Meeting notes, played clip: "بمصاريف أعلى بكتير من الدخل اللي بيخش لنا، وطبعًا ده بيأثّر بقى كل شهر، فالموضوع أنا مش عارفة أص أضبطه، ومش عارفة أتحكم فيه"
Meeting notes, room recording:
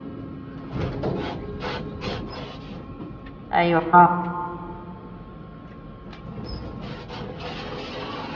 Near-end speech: present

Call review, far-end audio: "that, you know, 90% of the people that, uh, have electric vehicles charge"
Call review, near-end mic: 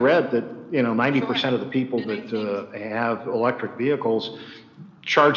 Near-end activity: present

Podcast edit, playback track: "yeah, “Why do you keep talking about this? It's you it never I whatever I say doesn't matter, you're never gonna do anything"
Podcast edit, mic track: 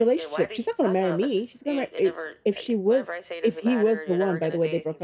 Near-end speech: present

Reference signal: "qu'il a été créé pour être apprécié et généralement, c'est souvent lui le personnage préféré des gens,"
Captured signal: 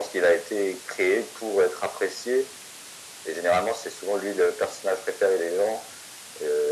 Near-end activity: none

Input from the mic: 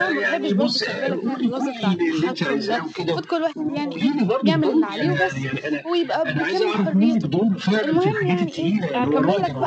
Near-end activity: present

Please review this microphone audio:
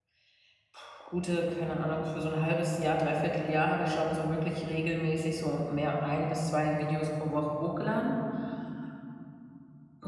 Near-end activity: present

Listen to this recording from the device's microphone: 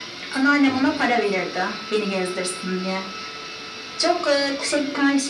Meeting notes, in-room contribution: present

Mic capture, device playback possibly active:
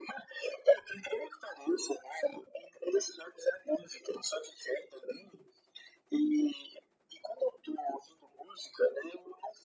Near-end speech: none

